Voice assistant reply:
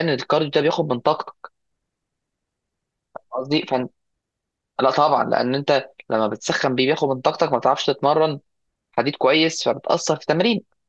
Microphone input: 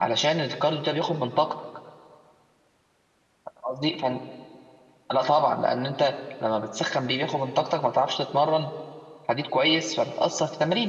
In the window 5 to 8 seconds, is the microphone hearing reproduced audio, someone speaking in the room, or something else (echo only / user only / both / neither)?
echo only